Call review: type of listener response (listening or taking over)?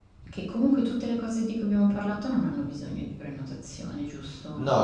taking over